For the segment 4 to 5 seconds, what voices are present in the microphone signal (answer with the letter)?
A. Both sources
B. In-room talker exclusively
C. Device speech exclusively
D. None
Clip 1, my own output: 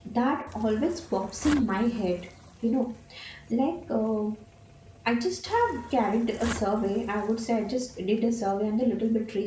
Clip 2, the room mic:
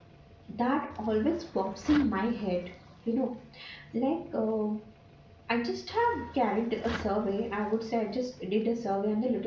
C